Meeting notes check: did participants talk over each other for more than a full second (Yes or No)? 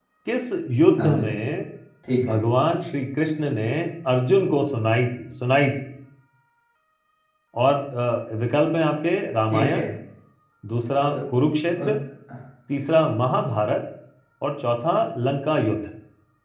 No